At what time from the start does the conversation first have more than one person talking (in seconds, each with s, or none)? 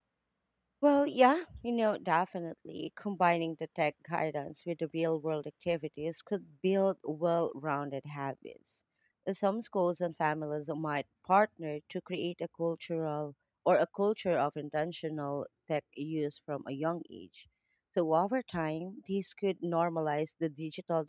none